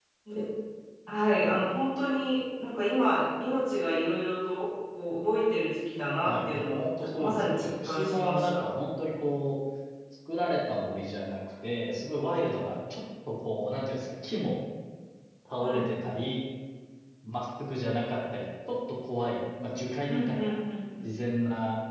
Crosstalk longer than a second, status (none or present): present